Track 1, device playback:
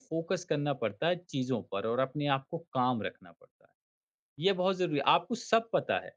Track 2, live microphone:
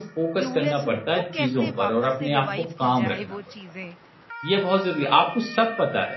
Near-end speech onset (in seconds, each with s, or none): 0.4 s